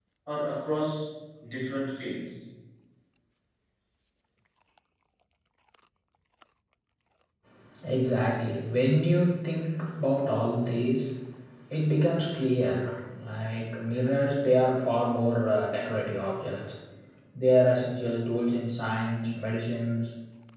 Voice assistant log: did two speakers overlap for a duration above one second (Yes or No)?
No